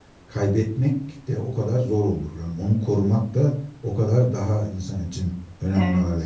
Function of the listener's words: taking over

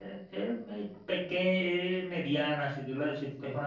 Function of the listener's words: listening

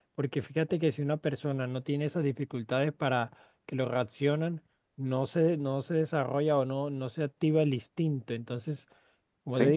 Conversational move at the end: listening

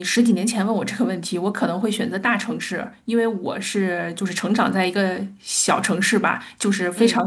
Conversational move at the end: listening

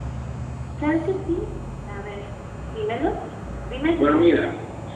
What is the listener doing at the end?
taking over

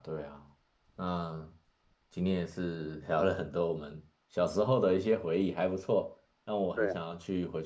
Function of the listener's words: listening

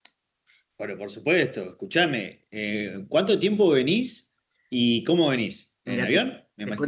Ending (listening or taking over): taking over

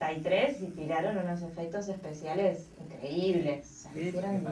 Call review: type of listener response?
taking over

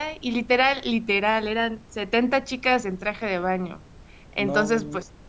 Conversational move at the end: listening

